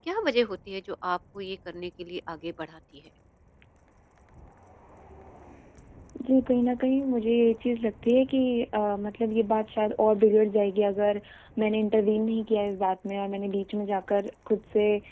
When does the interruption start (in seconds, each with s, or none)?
none